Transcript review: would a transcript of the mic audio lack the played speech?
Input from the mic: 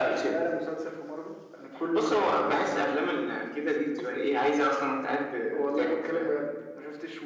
No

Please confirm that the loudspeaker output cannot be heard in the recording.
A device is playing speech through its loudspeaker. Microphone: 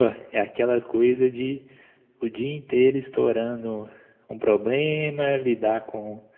Yes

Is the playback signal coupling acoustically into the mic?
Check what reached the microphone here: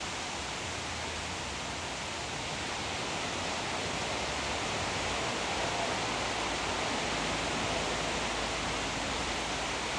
No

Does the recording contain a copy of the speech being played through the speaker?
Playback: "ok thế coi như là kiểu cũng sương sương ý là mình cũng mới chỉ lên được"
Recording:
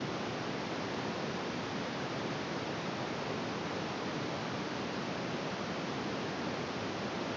No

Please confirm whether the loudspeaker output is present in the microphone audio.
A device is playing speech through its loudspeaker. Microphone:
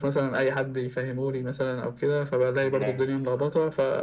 Yes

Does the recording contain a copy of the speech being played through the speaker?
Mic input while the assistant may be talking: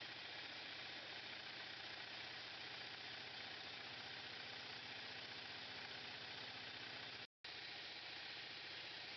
No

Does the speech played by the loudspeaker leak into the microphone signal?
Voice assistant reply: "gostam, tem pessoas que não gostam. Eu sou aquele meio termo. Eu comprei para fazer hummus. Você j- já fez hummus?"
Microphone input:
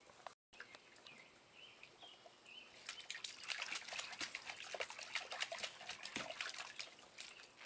No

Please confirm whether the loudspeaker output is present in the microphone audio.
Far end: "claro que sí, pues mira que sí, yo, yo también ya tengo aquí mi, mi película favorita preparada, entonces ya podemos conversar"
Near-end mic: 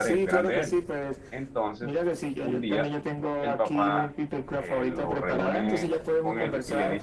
Yes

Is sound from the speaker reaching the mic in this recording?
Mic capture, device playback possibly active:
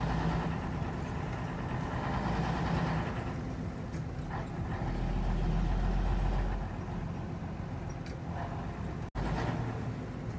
No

